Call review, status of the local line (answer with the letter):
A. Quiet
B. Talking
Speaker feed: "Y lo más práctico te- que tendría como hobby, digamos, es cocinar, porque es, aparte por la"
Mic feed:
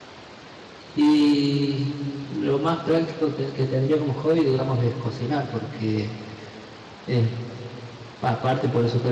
A